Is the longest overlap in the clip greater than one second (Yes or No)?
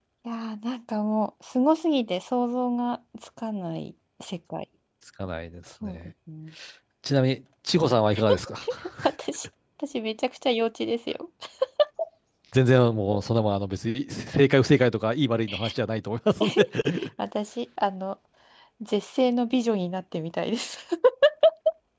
No